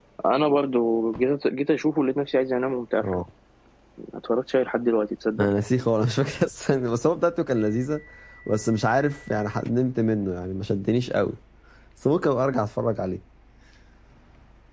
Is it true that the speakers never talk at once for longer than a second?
Yes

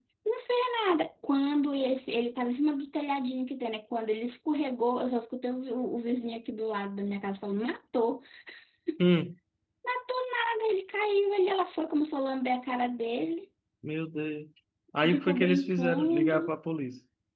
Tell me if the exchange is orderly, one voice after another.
No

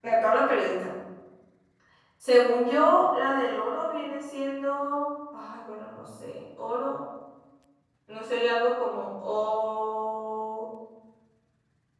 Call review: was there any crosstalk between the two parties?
No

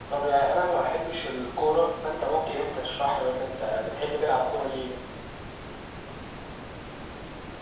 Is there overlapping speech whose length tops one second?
No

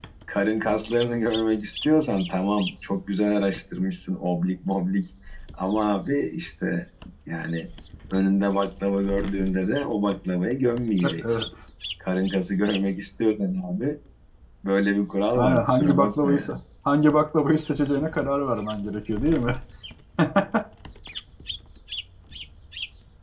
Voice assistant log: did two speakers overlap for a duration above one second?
Yes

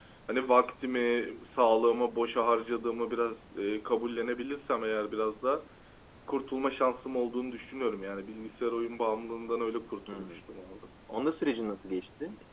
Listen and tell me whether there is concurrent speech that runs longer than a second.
No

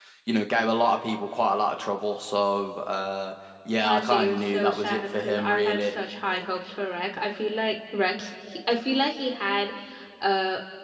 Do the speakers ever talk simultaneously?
Yes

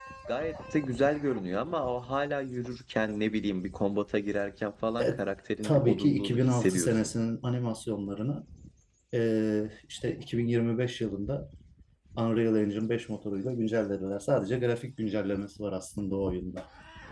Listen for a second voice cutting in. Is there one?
Yes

